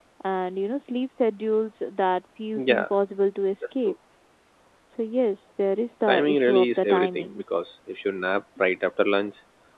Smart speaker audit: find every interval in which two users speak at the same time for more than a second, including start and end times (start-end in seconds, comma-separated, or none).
6.1-7.4